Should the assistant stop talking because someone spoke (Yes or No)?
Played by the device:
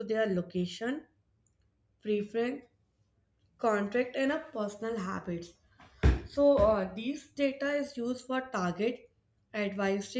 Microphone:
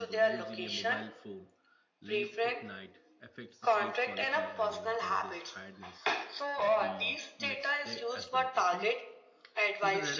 Yes